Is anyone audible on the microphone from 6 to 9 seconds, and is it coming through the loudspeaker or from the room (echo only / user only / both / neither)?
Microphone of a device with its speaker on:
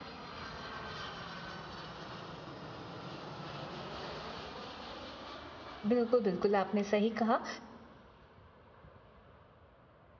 user only